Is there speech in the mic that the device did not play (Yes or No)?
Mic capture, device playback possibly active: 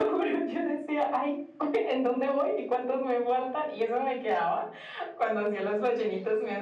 No